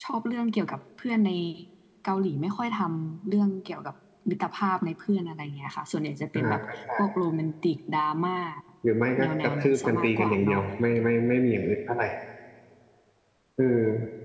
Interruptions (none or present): present